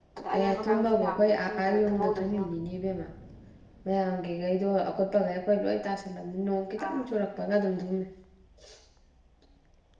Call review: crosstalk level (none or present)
present